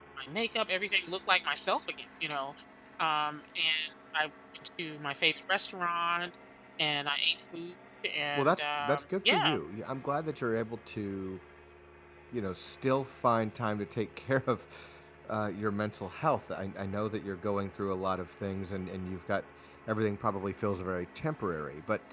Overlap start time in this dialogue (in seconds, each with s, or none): 8.3 s